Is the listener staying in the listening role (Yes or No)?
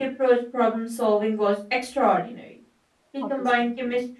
Yes